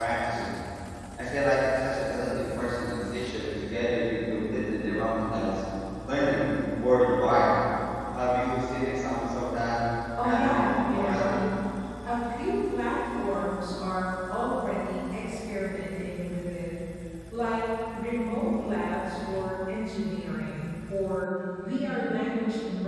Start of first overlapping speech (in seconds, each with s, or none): 10.2 s